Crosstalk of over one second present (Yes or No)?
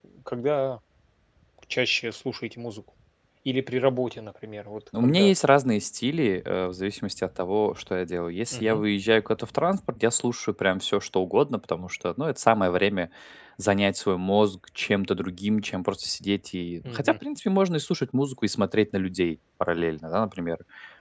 No